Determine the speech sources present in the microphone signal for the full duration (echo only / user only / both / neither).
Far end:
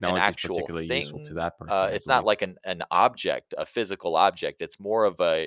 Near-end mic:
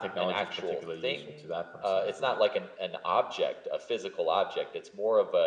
echo only